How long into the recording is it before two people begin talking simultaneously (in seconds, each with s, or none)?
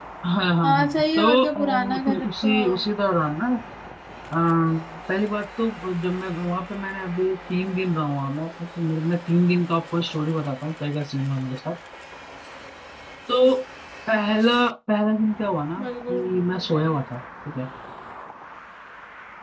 0.6 s